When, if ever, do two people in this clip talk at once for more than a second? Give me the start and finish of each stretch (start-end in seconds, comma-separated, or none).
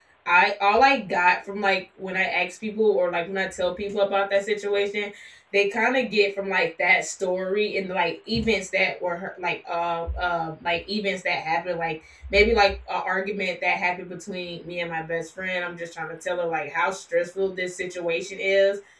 none